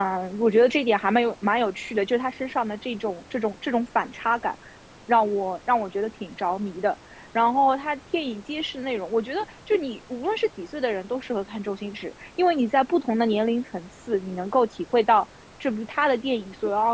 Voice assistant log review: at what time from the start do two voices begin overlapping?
none

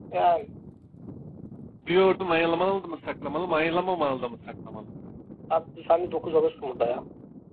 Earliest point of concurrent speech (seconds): none

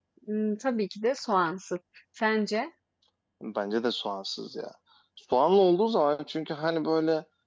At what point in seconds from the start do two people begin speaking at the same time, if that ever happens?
none

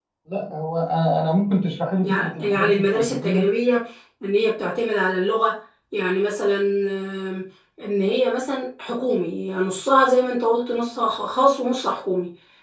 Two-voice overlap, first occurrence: 2.0 s

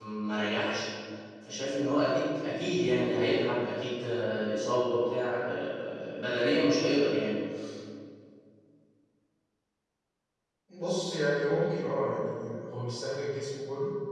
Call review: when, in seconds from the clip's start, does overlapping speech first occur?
none

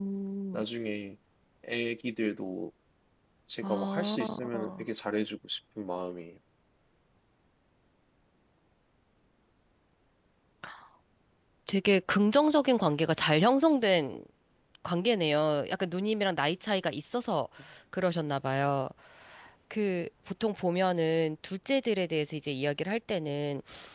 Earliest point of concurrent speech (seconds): 3.6 s

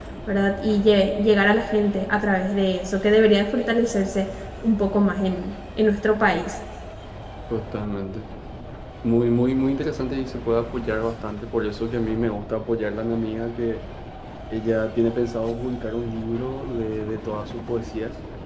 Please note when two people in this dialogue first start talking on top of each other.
none

